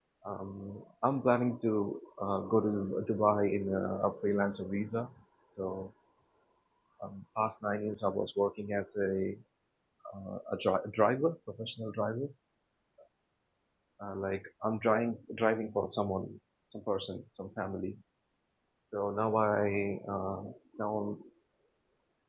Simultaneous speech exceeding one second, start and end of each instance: none

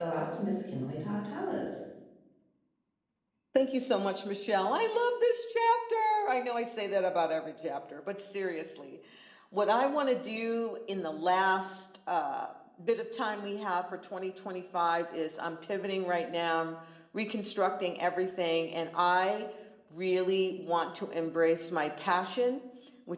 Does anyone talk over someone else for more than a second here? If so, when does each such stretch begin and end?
none

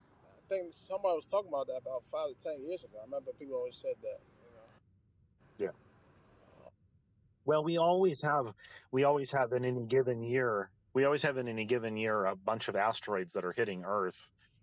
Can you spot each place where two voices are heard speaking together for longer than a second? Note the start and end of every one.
none

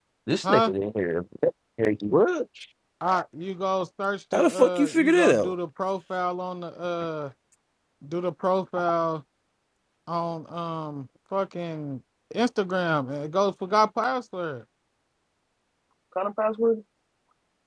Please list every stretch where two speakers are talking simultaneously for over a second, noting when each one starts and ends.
4.3-5.5

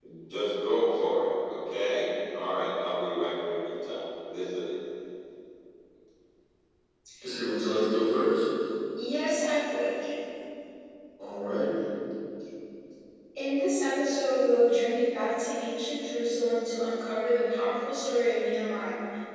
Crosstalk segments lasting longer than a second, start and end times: none

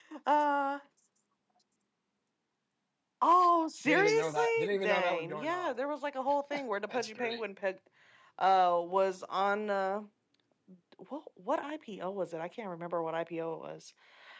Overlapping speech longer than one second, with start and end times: 3.8-5.7

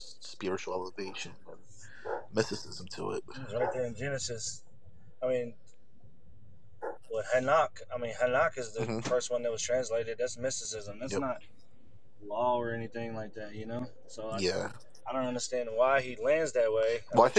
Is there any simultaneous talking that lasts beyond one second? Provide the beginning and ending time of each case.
none

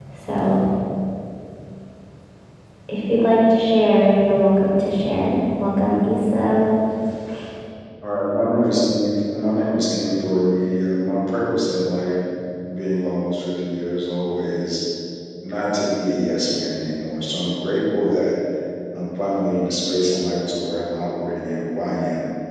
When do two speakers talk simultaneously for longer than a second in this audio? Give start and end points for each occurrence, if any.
none

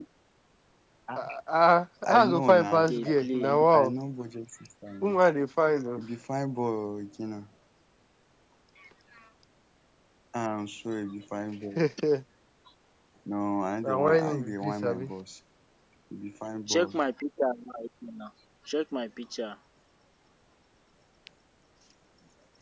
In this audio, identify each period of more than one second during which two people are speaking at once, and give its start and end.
2.1-3.9, 13.8-15.1

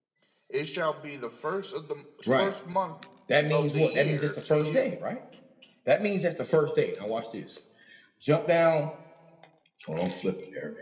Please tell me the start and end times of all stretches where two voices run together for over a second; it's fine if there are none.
3.5-4.8

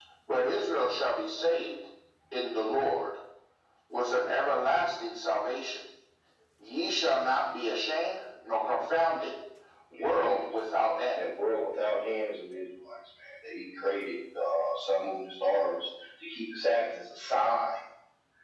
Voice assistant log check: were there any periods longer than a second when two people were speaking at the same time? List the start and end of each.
none

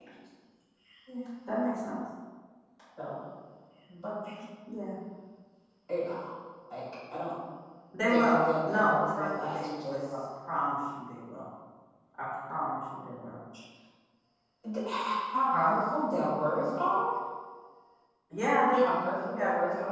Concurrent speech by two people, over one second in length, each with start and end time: 8.1-10.0

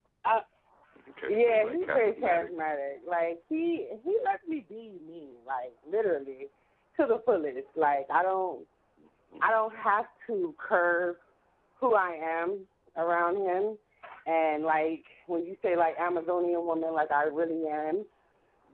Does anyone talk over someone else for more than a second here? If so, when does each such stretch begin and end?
1.3-2.5

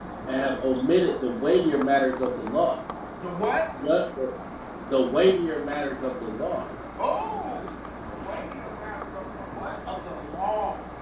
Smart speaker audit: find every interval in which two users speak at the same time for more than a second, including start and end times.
none

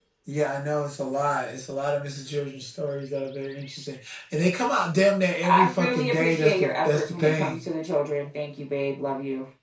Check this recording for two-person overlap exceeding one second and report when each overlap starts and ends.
5.5-7.6

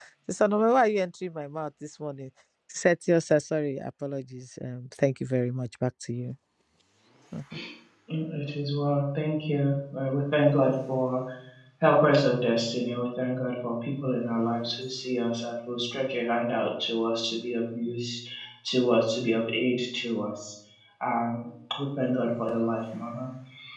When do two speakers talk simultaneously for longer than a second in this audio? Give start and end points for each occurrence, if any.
none

